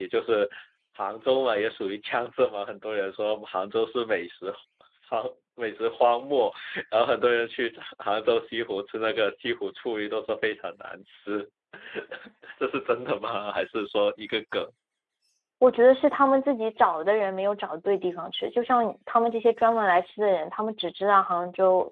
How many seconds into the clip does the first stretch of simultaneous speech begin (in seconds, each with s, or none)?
none